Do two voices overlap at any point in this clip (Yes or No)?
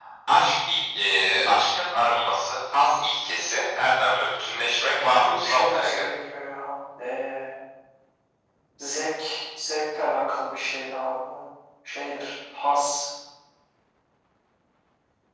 Yes